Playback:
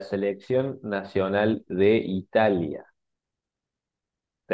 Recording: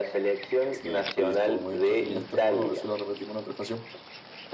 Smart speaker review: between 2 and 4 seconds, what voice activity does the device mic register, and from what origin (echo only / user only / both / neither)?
both